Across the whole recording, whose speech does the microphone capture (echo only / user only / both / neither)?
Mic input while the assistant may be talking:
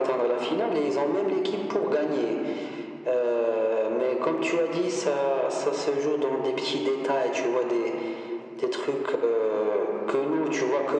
echo only